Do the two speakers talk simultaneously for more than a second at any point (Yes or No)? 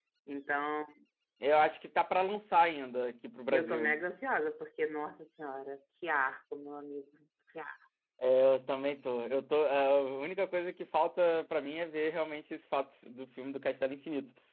No